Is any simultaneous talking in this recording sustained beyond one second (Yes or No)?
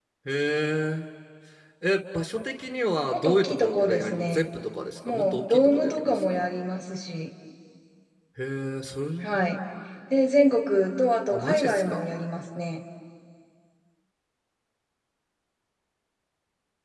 Yes